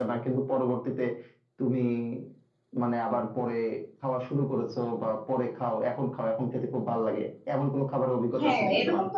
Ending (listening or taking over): taking over